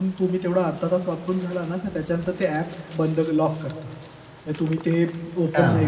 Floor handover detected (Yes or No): No